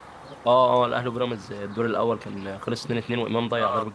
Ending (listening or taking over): taking over